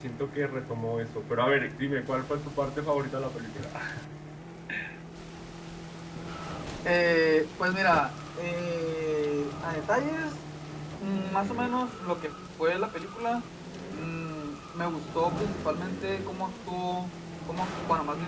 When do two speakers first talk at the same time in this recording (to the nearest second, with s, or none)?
none